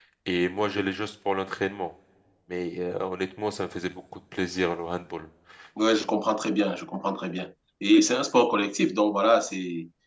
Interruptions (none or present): none